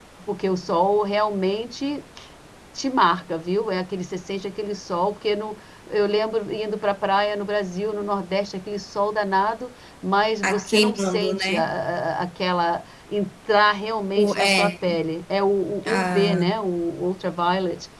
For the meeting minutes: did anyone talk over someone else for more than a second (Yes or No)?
Yes